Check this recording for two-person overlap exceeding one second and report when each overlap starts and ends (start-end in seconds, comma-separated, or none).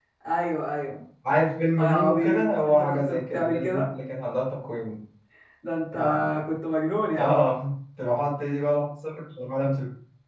1.8-3.9